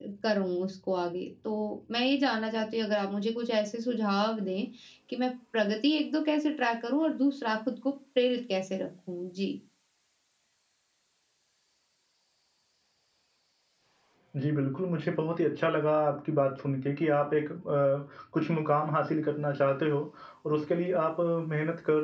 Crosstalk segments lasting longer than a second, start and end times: none

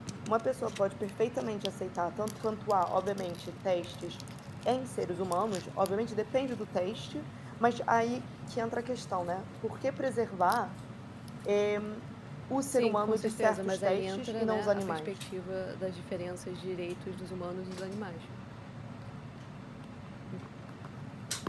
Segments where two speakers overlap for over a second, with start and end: 12.7-15.1

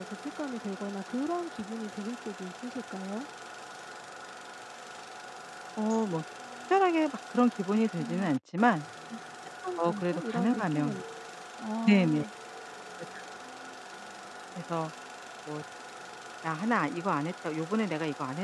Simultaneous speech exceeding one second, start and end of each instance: 9.8-11.0

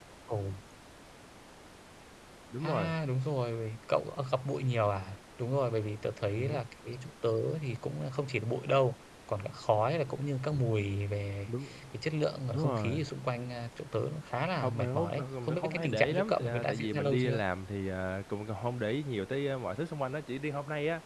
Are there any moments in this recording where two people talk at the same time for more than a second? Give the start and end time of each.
14.6-17.4

